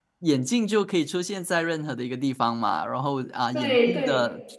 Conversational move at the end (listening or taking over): listening